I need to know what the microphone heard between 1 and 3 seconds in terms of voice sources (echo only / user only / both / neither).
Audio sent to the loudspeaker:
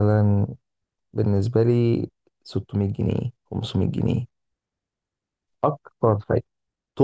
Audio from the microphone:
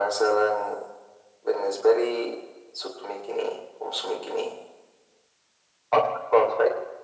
echo only